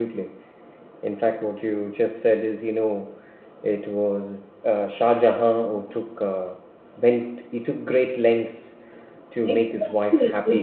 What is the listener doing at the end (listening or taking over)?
taking over